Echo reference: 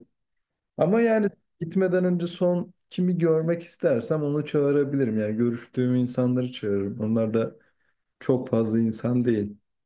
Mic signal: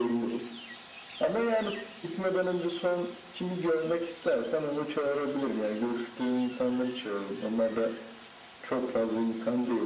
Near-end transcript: none

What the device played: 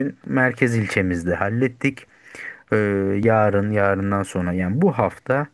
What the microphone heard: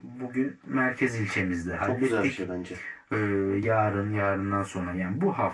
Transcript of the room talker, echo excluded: Çok güzel bir şey bence.

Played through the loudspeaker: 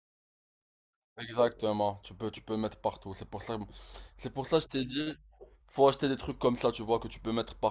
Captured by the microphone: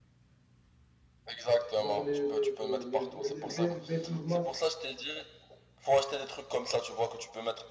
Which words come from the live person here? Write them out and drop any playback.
genre les, les, les, les, les V- les Vapor Max.

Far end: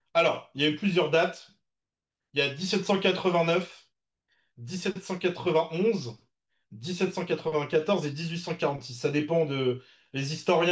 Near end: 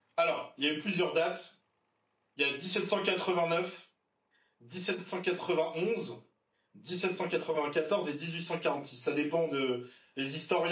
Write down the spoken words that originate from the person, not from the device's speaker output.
none

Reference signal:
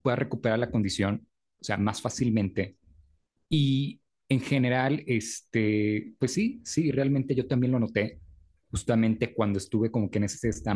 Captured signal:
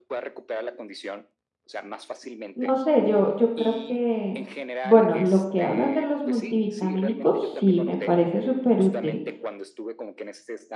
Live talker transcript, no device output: no sé, yo, yo creo que, bueno, lo que hablas de los multivitamínicos, sí, me parece súper útil.

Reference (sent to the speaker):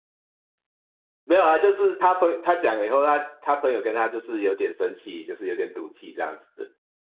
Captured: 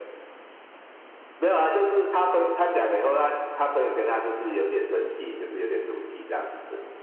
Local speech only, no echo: none

